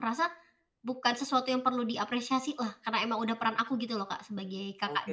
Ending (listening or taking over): taking over